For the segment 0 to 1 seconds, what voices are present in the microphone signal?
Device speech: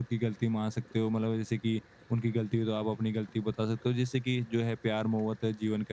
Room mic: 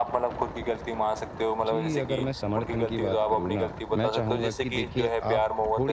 echo only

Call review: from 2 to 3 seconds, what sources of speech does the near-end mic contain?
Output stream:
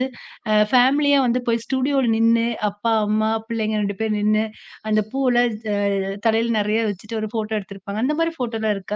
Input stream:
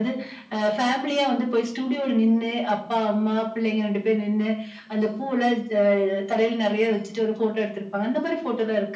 echo only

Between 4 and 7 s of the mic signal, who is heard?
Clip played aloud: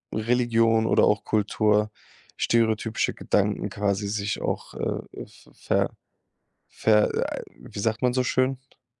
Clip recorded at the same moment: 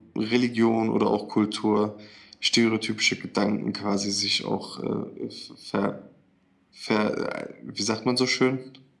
echo only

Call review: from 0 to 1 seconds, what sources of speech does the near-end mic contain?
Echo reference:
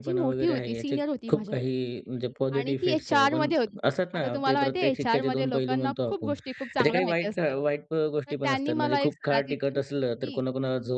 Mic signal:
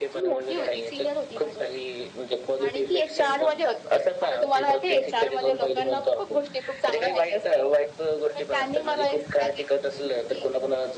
echo only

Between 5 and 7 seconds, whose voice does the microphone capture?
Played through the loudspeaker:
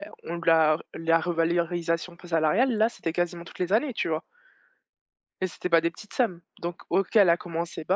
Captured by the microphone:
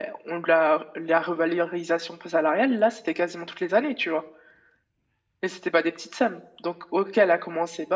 echo only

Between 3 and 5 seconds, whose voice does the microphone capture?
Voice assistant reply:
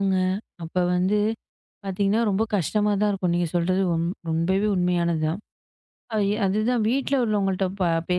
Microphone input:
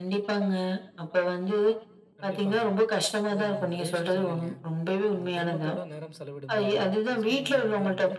both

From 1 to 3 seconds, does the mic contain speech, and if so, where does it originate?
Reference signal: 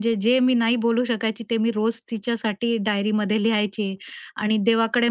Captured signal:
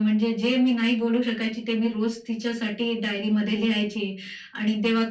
echo only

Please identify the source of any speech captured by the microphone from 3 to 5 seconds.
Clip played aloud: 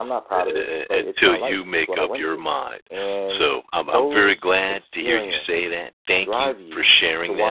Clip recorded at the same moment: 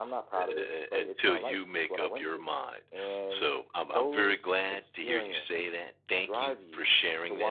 echo only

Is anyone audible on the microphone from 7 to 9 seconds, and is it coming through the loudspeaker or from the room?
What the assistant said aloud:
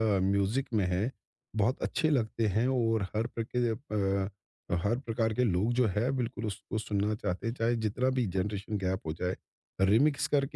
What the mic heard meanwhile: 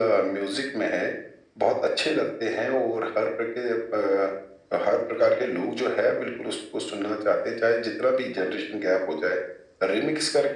echo only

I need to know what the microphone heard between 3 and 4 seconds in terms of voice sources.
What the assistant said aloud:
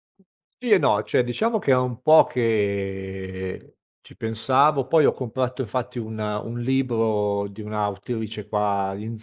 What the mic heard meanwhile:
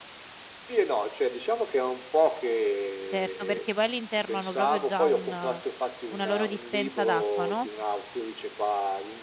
both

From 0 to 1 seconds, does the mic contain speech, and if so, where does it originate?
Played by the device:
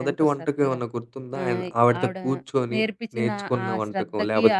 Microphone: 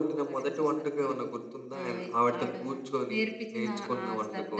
echo only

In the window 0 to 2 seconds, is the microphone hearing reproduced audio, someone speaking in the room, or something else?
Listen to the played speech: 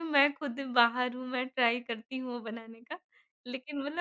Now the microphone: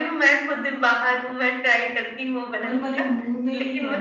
echo only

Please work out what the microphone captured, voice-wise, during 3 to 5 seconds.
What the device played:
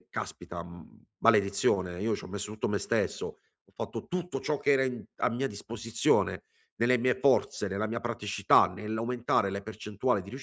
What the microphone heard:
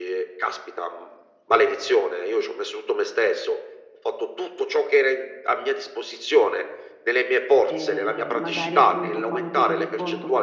echo only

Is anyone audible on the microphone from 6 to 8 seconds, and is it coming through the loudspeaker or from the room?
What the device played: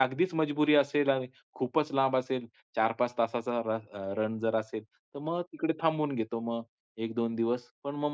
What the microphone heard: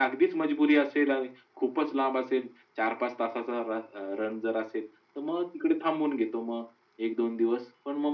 echo only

